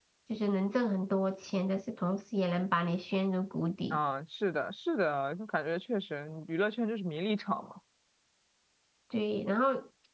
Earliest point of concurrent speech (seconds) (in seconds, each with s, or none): none